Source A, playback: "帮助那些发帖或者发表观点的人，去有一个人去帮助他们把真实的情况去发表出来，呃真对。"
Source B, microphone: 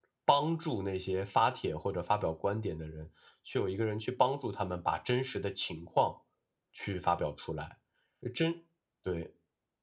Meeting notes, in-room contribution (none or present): none